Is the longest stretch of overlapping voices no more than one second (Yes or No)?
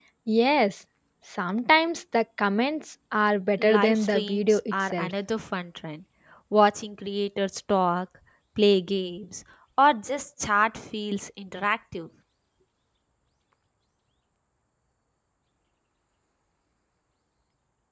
No